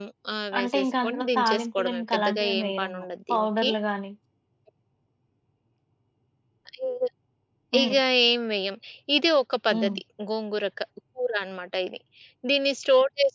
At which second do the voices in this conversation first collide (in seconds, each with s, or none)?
0.6 s